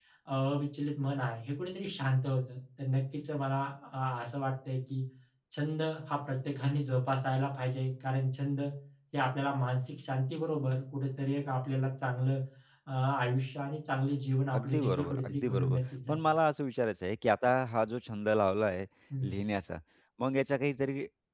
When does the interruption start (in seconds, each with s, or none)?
14.5 s